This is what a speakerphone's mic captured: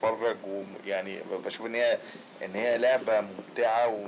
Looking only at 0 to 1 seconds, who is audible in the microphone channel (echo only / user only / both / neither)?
echo only